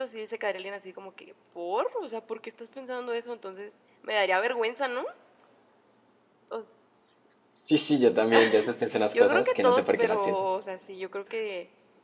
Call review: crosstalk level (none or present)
present